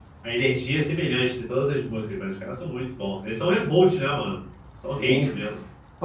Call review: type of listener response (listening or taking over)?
taking over